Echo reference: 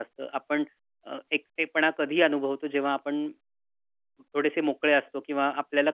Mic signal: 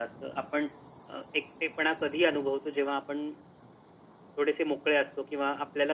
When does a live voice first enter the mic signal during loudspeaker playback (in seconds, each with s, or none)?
none